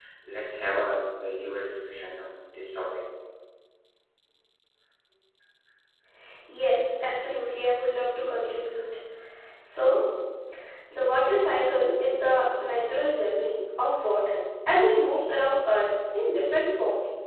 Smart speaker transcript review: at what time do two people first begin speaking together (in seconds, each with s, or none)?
none